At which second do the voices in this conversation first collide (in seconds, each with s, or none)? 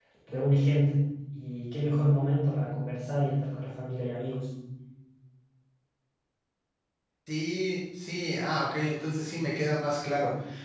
none